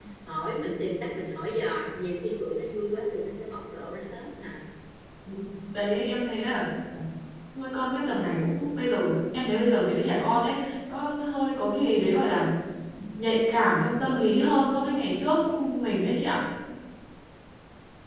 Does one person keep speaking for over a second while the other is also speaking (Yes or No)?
No